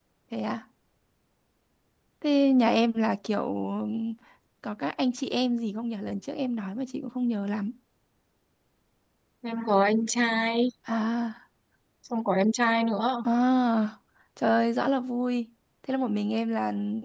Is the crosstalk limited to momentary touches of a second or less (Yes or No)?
Yes